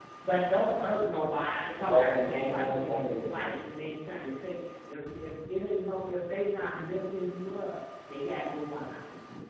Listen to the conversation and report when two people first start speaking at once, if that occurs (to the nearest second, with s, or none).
2 s